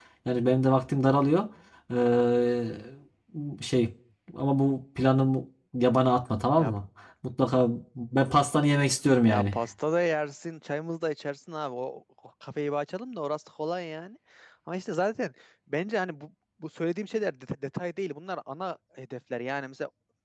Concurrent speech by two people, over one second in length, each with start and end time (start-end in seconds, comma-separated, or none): none